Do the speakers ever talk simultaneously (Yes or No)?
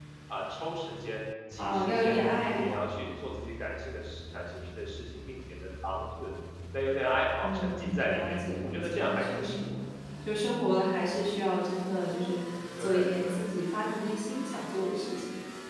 Yes